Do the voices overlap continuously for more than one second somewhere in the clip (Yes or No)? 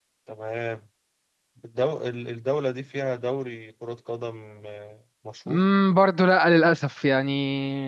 No